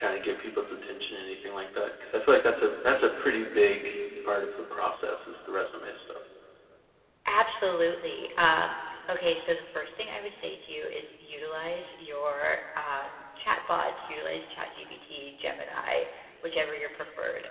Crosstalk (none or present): none